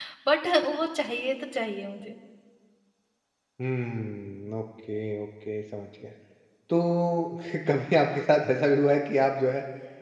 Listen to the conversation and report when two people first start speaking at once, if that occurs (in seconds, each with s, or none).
none